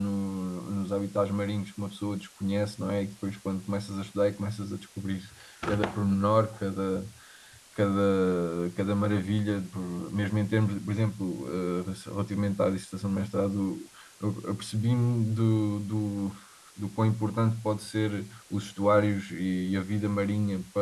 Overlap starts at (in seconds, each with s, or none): none